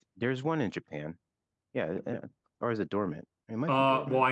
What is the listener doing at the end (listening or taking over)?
taking over